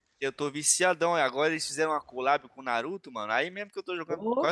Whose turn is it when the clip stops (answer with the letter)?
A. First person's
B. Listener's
A